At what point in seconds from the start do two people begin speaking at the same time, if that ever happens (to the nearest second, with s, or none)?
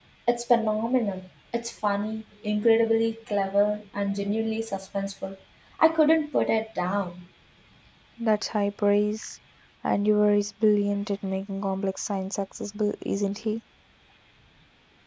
none